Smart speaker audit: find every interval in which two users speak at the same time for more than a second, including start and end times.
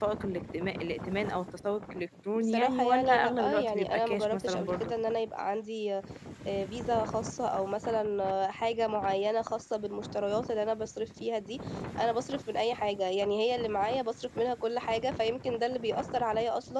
2.4-4.9

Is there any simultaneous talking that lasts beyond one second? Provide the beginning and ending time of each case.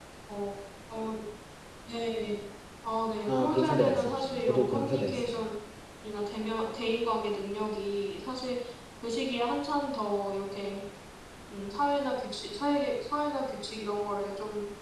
3.3-5.5

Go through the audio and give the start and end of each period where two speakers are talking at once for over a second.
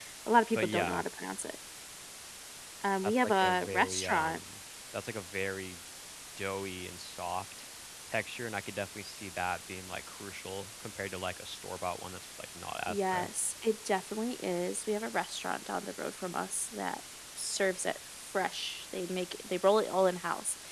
3.0-4.4

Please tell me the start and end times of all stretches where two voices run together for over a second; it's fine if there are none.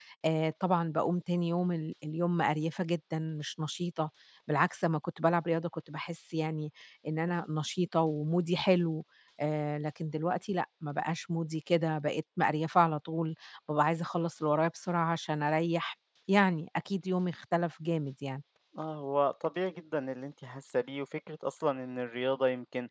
none

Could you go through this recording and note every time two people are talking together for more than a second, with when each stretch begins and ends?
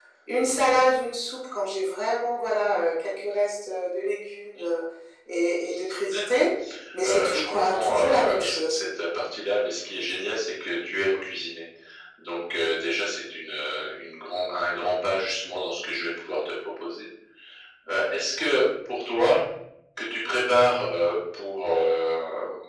7.0-8.8

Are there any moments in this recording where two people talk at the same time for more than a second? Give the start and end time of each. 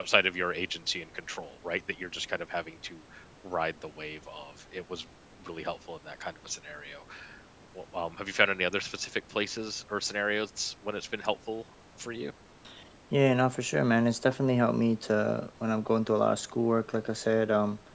none

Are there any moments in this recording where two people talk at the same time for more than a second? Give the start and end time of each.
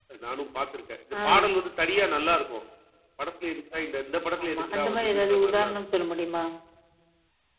4.4-5.8

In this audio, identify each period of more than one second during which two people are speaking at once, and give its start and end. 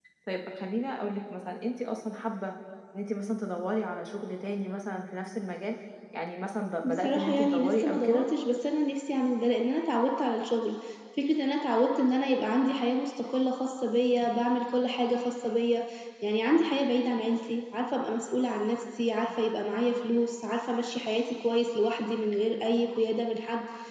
6.8-8.2

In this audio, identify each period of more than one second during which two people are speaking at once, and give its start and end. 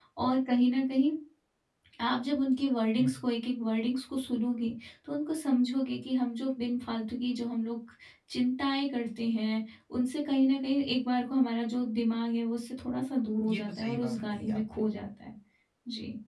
13.5-14.8

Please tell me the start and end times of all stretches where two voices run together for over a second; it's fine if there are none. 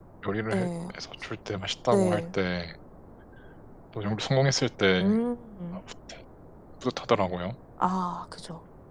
none

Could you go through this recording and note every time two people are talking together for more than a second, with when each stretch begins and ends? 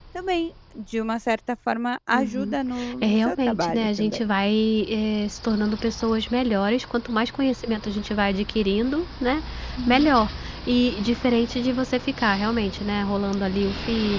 3.0-4.2

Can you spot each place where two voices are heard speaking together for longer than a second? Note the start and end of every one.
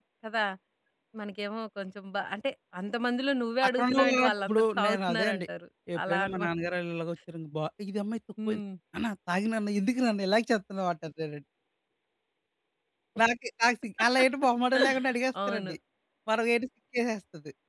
3.8-5.5

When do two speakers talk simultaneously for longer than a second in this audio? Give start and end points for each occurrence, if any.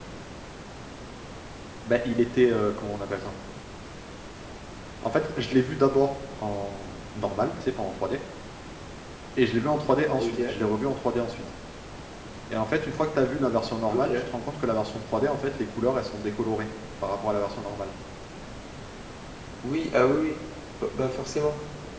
none

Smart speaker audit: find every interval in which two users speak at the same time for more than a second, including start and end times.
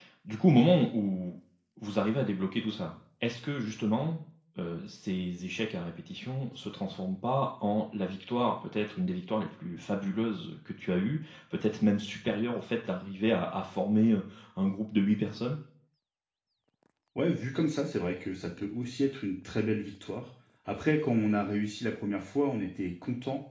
none

